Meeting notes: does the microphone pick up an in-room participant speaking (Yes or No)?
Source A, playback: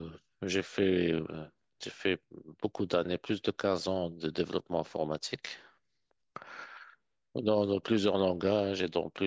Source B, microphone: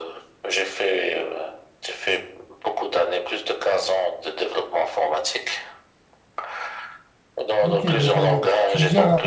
Yes